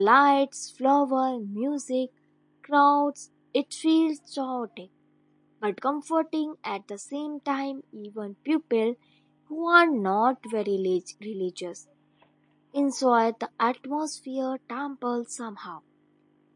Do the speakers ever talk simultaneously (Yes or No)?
No